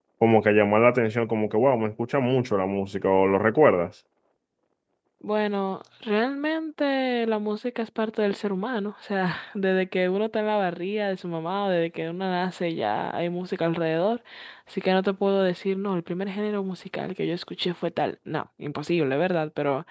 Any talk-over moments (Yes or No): No